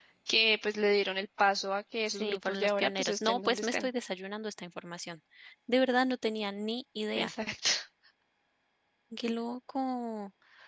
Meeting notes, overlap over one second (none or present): present